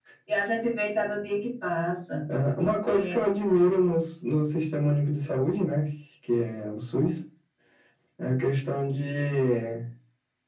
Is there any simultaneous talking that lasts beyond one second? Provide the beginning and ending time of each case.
none

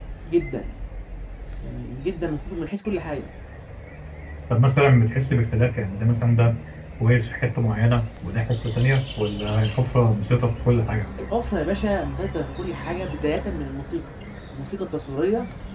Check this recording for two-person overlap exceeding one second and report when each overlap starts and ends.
none

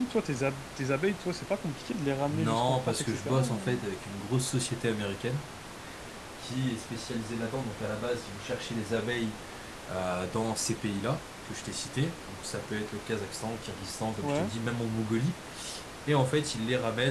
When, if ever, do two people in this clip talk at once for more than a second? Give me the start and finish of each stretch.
2.3-3.8

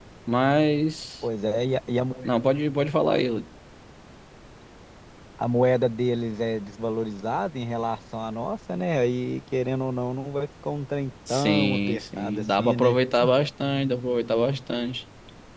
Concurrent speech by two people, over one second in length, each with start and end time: 11.3-13.0

